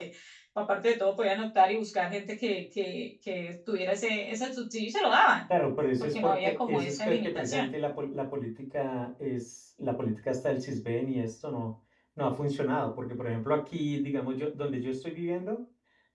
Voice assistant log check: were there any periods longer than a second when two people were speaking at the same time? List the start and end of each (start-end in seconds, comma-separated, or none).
6.0-7.7